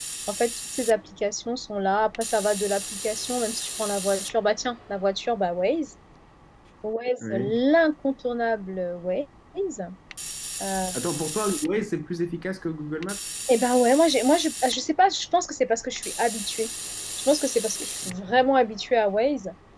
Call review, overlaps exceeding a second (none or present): none